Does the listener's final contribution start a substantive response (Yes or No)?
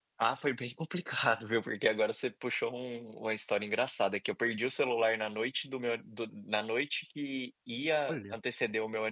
No